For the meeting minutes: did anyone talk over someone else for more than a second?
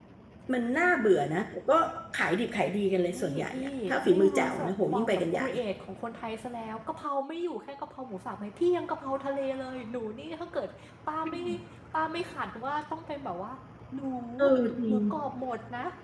Yes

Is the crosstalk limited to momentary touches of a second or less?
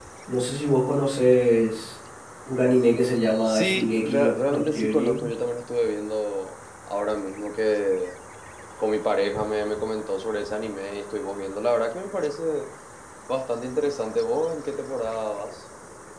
No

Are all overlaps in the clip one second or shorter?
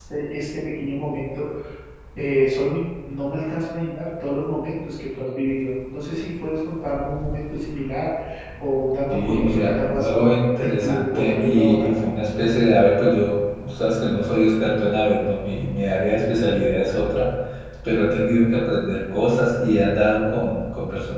No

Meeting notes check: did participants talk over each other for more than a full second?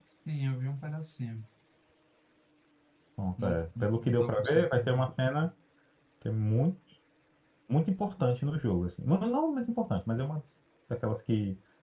Yes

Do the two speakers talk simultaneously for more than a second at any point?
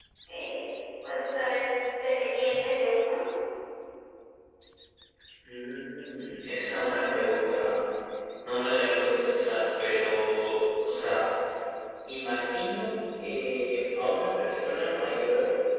No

